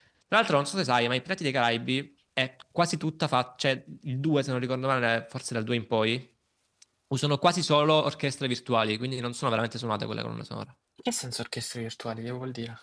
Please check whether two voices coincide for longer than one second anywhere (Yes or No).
No